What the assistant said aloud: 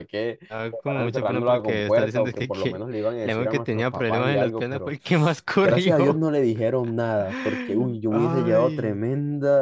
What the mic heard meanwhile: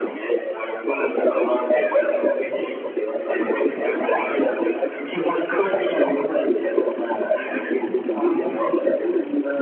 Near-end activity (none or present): none